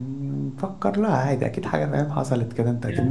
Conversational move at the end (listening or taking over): taking over